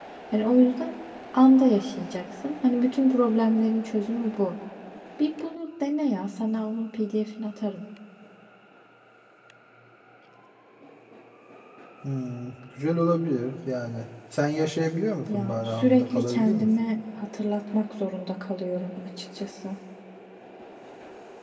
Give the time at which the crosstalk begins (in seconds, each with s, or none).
15.3 s